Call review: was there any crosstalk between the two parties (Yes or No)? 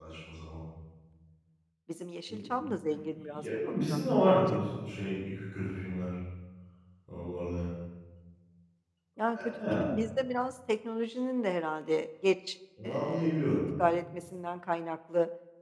Yes